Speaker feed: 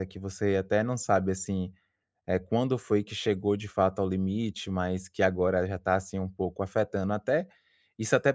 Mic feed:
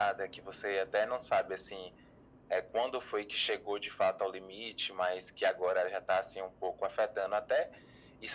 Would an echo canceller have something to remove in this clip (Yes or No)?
Yes